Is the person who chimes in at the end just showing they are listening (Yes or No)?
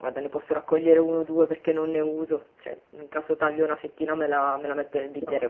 Yes